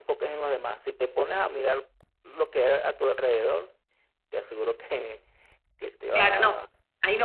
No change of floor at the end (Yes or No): No